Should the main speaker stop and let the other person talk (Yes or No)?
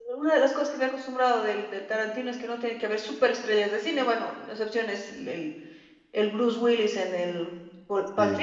No